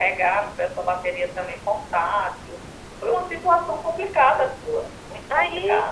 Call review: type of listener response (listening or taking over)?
taking over